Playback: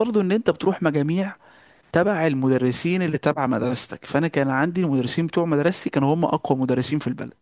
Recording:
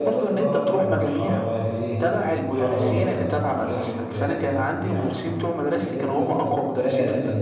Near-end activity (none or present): present